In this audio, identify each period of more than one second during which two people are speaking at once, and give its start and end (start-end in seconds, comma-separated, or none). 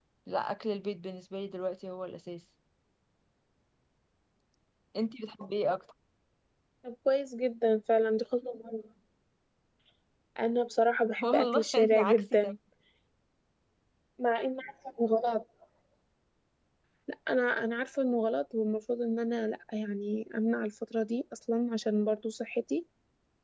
11.2-12.5